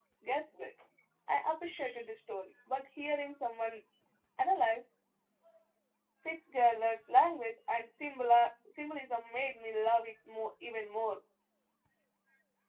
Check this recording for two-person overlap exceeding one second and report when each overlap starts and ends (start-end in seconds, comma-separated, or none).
none